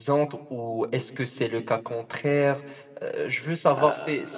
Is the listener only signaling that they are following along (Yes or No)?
No